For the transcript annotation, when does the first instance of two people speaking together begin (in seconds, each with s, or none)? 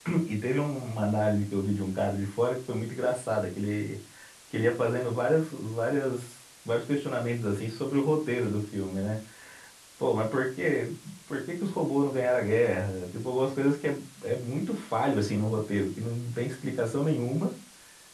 none